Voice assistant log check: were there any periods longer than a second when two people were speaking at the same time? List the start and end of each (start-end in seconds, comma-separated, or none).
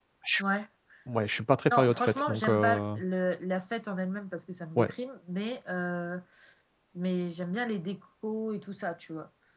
1.7-3.0